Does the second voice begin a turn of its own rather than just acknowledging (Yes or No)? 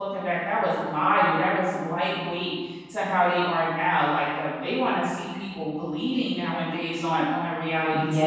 Yes